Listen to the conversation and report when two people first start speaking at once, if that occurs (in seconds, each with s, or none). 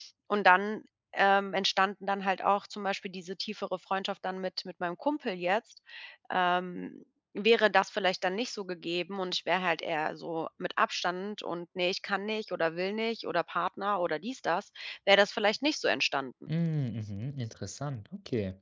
none